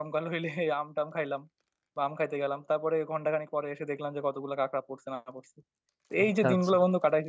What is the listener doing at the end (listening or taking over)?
listening